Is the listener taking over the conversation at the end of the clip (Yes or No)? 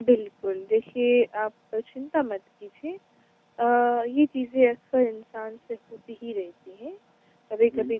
No